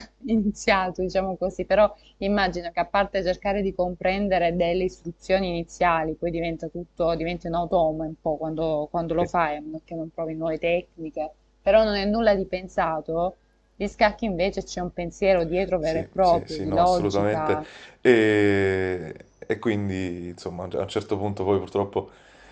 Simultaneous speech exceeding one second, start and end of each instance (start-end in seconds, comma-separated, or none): 15.9-17.6